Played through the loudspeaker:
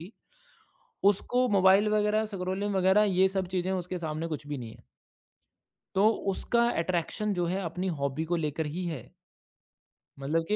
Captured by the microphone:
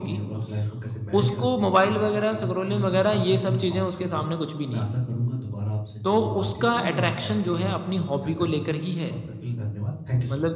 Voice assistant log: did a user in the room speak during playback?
Yes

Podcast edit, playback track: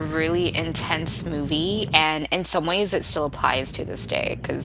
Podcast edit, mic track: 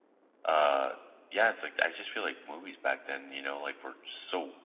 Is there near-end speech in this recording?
Yes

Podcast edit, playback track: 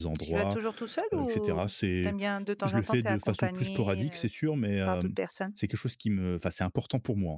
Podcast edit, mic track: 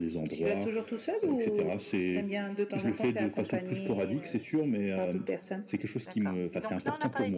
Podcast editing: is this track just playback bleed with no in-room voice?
No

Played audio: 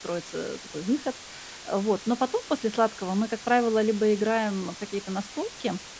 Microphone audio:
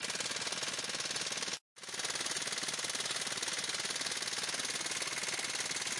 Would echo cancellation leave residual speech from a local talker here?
No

